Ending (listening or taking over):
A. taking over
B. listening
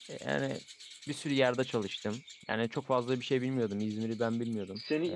A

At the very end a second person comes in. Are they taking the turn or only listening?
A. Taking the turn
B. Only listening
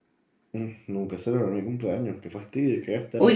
A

